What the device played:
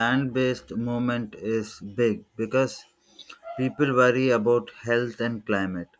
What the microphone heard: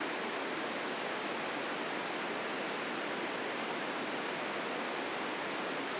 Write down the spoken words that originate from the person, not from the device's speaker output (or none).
none